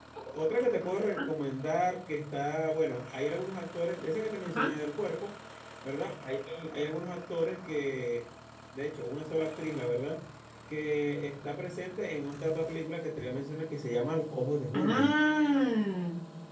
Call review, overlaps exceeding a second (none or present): none